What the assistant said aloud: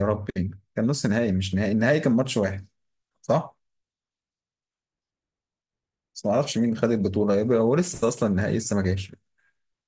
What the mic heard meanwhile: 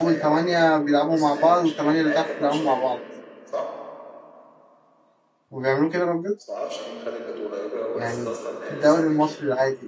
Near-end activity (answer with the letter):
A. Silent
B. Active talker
B